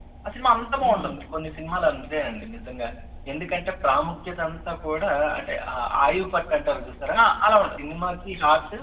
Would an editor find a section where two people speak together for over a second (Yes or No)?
No